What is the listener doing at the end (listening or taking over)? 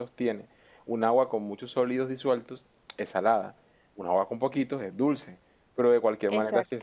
listening